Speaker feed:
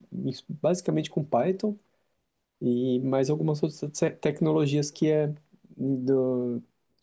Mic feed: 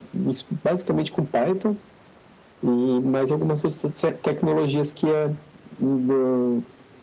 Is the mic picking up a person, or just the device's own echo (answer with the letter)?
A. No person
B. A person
A